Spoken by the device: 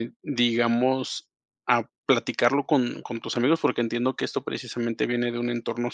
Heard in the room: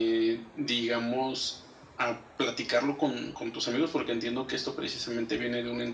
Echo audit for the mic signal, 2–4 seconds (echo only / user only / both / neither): echo only